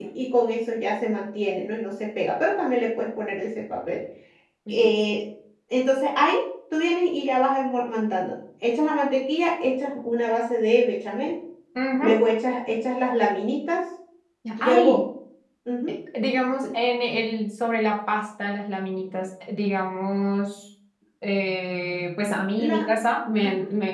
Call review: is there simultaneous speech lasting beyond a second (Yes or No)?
No